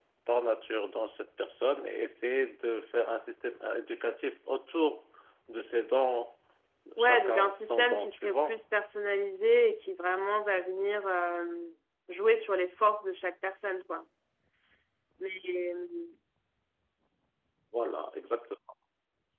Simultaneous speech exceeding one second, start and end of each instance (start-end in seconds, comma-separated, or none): 7.0-8.6